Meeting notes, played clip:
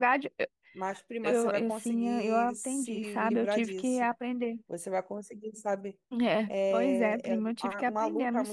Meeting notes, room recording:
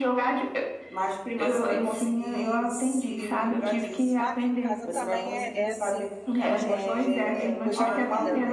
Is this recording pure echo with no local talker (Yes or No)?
No